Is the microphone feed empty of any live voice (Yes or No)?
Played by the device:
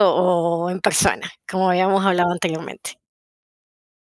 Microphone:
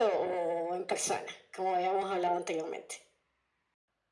Yes